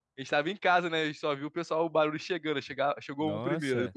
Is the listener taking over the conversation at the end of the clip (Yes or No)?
Yes